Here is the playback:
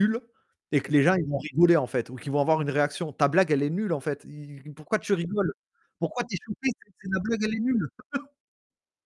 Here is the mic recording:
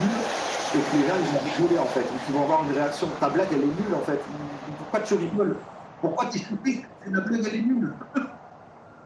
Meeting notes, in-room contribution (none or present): none